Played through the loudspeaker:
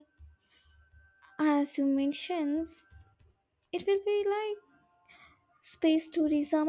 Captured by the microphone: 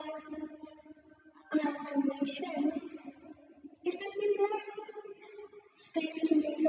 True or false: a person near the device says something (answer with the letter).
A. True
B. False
B